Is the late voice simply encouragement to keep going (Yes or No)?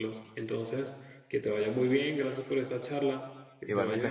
No